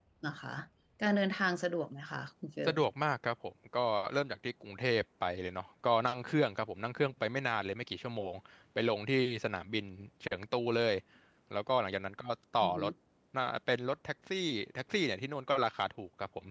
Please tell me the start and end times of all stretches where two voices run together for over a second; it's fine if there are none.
none

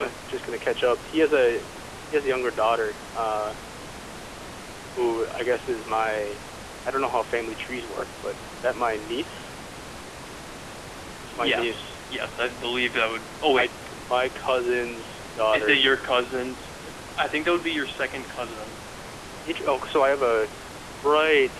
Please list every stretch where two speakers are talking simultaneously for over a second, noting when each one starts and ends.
none

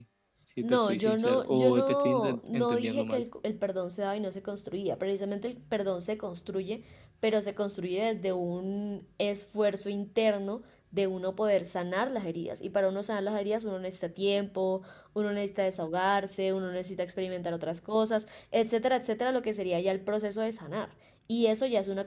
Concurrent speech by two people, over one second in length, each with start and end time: 0.6-3.2

